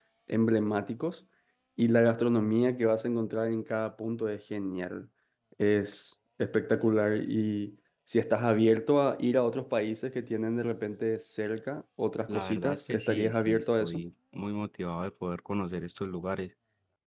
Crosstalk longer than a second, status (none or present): present